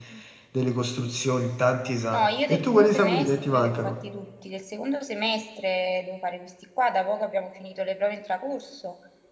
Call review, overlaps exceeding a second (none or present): present